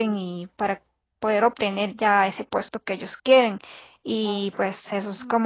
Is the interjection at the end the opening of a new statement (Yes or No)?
No